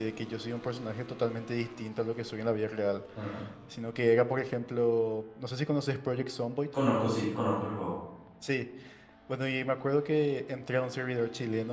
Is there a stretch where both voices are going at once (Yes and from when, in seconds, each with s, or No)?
No